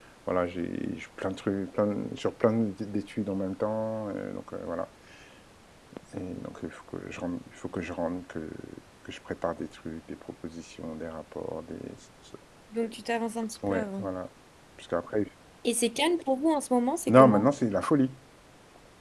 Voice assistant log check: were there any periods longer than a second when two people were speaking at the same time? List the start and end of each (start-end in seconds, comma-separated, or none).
none